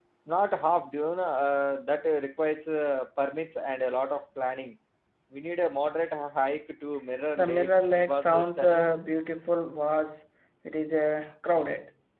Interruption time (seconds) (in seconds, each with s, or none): 7.4 s